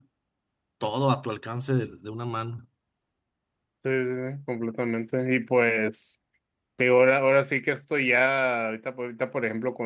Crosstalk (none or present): none